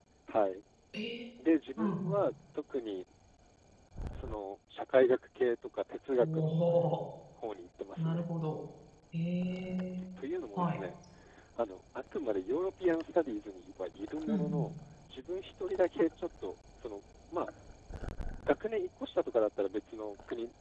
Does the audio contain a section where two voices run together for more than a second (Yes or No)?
No